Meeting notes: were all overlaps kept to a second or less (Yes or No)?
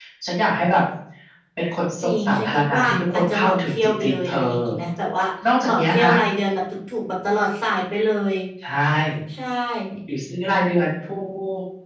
No